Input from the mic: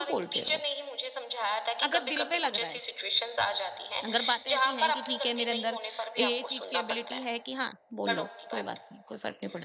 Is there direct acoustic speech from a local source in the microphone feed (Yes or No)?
Yes